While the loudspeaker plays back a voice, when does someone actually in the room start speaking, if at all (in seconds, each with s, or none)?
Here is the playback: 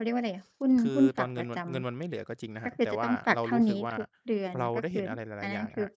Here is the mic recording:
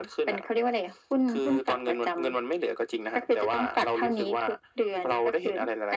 none